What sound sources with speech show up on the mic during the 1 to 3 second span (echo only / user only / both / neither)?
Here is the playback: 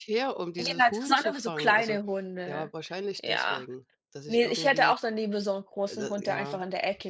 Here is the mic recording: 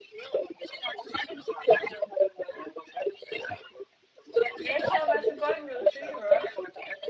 echo only